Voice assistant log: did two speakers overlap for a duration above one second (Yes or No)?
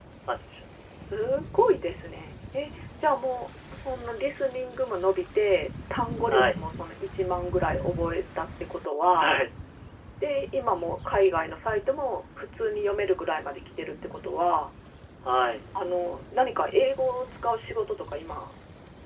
No